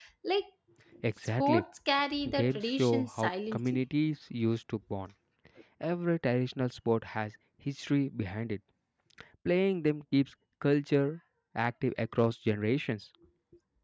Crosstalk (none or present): present